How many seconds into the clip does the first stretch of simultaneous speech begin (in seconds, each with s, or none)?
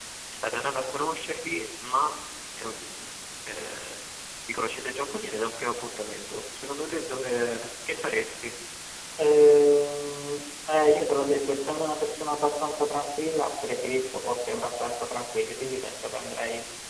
none